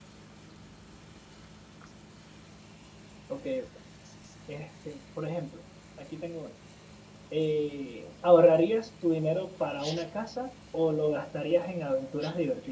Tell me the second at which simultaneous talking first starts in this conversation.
none

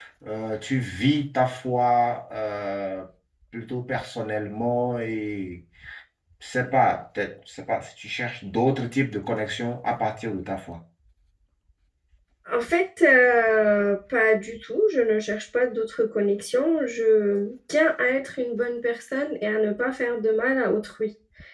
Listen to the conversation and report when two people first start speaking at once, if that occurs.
none

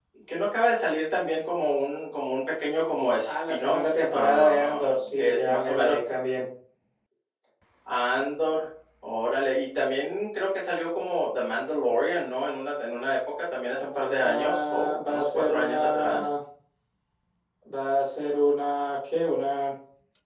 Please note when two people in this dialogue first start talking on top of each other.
3.2 s

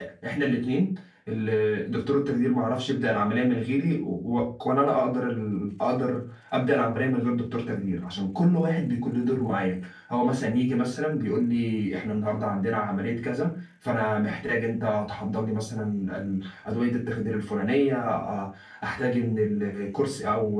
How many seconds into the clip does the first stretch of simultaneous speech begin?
none

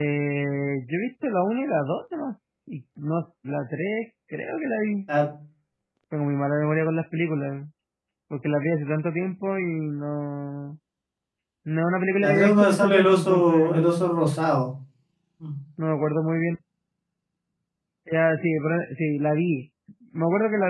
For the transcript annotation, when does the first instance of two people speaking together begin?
12.2 s

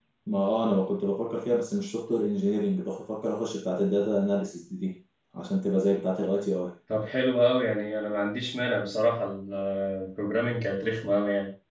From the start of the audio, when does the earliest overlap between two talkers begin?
none

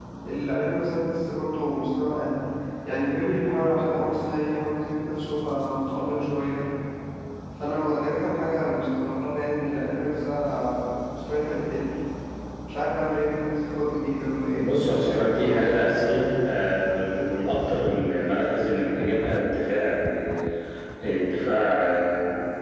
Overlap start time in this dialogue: 14.6 s

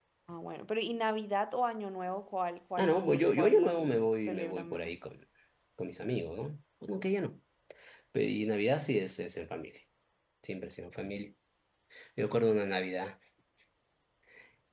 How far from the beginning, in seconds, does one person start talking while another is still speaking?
2.8 s

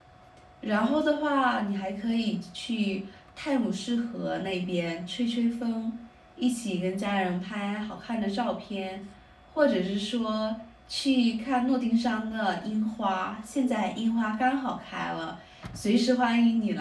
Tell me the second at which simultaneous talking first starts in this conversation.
none

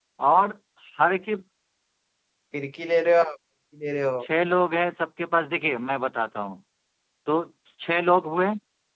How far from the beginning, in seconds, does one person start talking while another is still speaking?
none

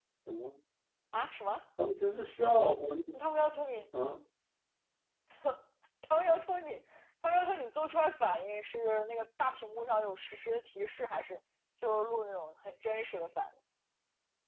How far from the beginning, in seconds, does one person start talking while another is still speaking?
none

